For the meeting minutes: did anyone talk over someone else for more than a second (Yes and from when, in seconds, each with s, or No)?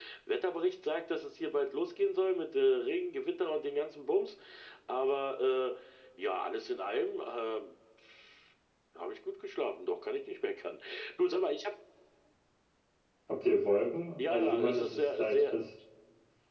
Yes, from 14.2 s